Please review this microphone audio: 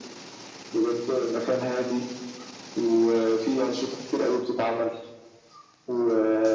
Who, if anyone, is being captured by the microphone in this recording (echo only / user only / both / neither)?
echo only